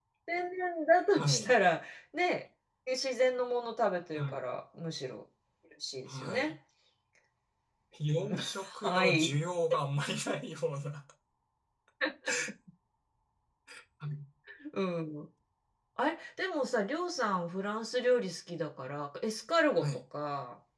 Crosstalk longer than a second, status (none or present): present